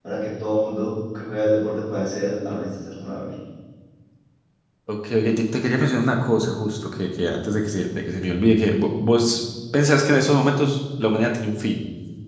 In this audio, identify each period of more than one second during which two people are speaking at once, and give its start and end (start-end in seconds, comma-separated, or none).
none